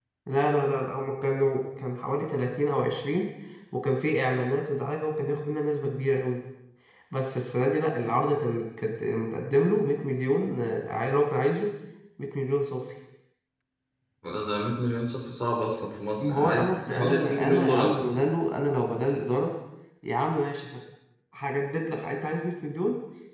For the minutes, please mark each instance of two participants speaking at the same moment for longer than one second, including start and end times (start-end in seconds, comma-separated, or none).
16.2-18.0